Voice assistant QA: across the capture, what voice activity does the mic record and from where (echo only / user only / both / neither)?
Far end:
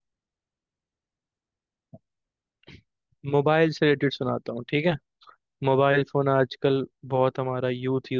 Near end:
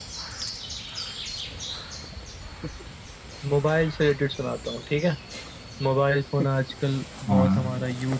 both